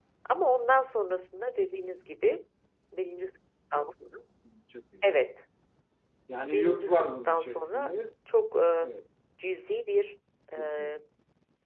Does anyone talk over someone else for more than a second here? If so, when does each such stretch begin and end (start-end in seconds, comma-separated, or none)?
6.5-7.9